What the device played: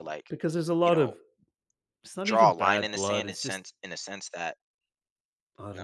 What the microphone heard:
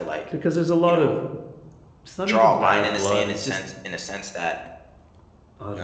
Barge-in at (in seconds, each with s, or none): none